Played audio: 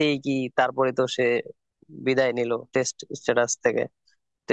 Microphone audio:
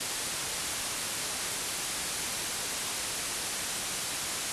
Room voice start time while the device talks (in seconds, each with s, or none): none